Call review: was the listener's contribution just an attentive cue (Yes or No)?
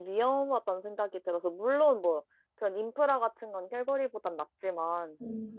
Yes